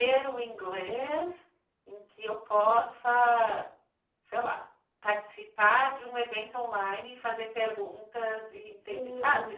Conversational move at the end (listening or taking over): taking over